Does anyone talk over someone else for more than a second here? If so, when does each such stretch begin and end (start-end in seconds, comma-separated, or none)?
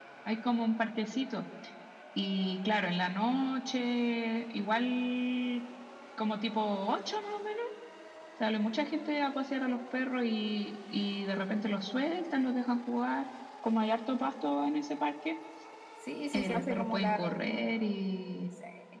16.3-17.6